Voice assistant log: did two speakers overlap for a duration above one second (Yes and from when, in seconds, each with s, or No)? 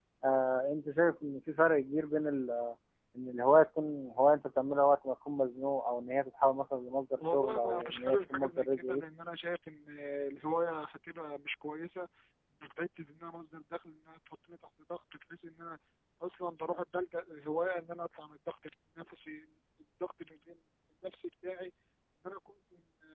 Yes, from 7.2 s